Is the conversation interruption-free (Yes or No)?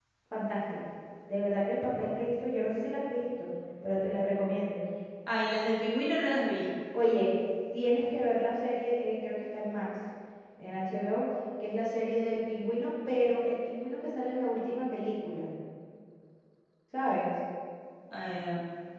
Yes